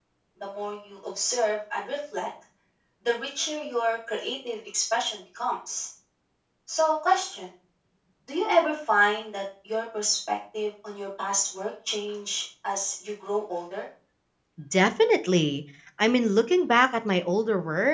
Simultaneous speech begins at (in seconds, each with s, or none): none